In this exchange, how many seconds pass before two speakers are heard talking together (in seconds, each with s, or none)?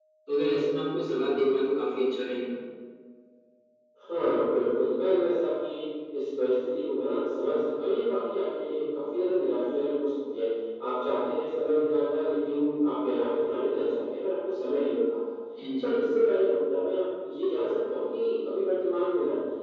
none